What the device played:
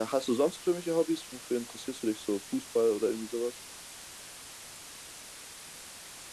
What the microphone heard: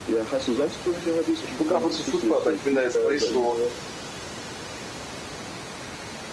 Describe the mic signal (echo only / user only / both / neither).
both